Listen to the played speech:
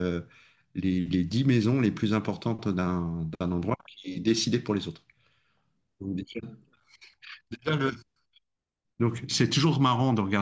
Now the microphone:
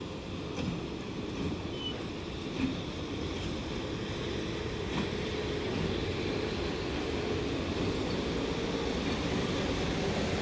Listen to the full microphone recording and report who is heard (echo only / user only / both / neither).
neither